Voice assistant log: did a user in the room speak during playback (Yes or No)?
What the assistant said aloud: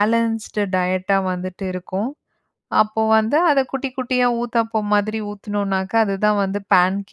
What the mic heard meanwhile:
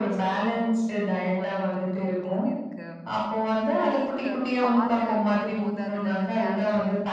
Yes